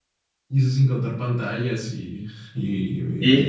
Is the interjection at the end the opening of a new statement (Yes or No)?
Yes